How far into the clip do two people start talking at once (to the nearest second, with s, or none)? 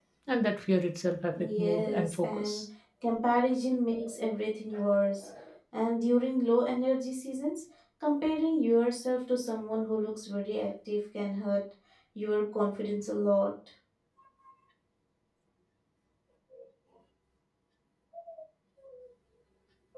1 s